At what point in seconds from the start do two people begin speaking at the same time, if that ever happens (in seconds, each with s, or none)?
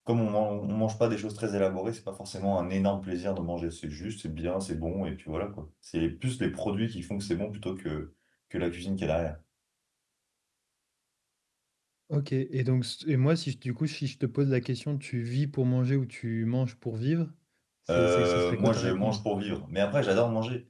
18.0 s